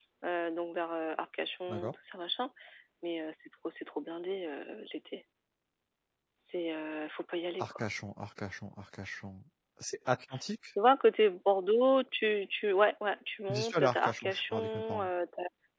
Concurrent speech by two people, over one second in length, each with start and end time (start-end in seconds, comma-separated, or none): 13.5-15.1